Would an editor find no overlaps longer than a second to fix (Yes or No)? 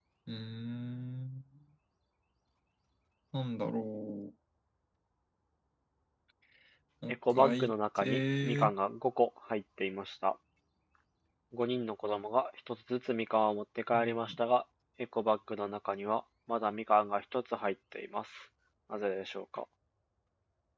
No